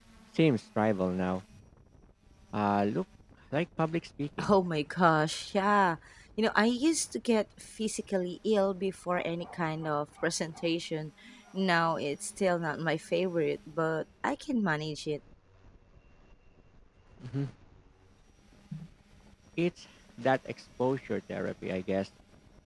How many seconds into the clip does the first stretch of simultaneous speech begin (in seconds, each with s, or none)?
none